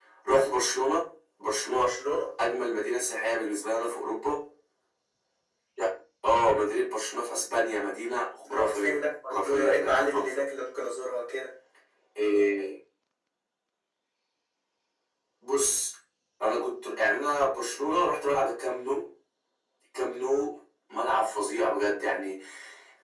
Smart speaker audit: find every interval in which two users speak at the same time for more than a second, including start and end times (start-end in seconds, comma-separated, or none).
8.5-10.4